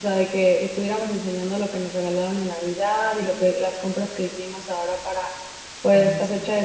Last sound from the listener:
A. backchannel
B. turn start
A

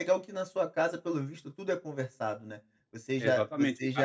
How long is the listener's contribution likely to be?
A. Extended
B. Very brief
A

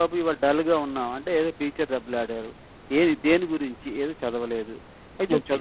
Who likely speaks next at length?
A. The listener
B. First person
B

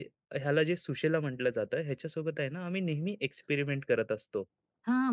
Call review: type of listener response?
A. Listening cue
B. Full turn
B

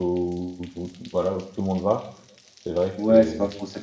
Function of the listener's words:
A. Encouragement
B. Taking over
B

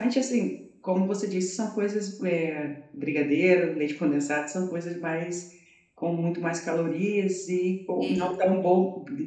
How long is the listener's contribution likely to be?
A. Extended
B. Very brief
B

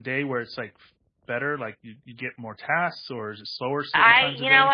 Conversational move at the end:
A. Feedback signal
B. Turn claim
B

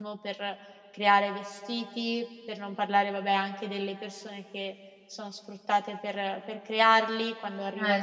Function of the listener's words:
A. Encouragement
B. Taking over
A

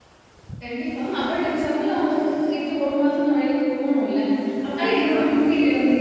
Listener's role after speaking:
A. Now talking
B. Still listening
B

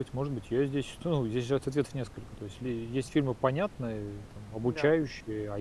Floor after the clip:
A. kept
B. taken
A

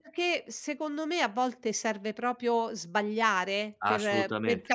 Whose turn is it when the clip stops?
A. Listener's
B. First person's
B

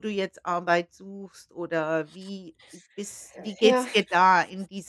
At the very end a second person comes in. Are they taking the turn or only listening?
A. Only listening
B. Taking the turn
A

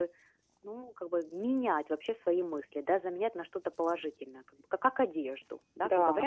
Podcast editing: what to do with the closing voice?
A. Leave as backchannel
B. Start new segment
A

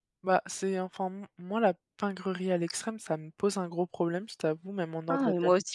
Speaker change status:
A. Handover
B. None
A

